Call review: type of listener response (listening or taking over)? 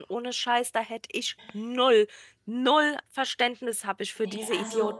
taking over